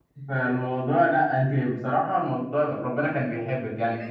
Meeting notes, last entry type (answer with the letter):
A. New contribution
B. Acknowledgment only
A